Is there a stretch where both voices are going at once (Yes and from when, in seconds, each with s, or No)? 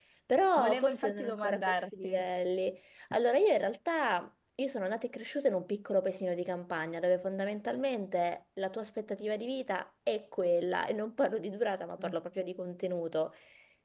Yes, from 0.6 s